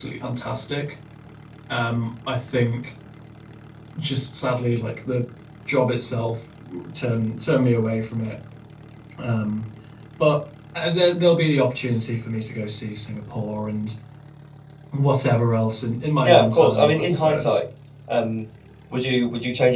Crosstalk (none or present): present